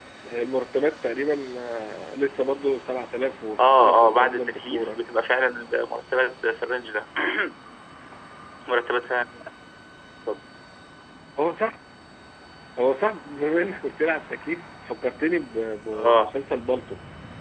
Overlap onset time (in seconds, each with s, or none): 3.6 s